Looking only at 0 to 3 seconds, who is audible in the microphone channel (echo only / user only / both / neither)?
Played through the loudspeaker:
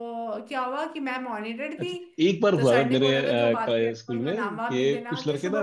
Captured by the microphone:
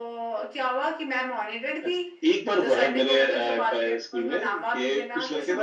echo only